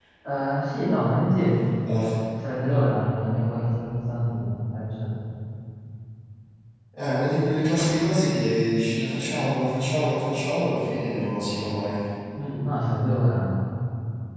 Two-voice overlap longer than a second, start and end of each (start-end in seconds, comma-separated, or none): none